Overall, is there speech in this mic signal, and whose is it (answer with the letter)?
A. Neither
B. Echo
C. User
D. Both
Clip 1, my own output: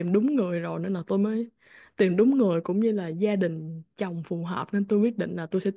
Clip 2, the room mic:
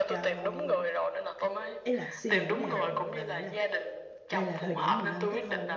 D